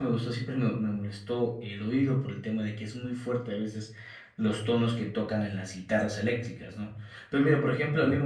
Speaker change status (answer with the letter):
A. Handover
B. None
B